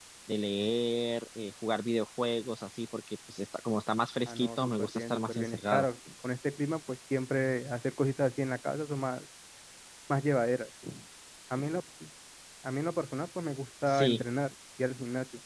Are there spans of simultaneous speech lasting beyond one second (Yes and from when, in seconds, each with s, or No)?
Yes, from 4.3 s